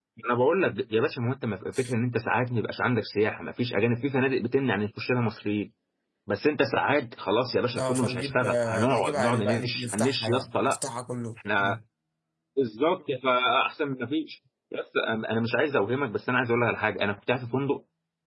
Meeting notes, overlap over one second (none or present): present